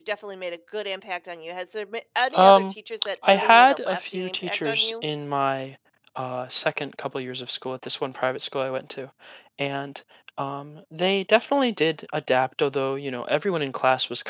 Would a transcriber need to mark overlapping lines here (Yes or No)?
Yes